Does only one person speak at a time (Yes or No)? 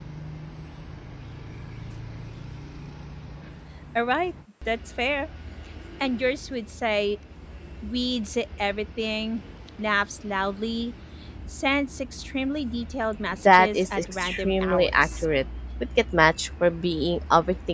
No